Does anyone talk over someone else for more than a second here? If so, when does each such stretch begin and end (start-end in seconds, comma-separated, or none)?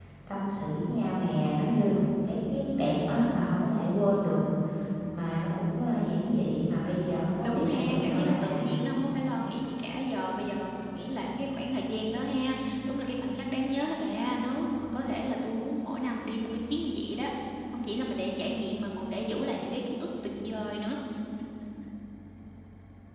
7.4-8.6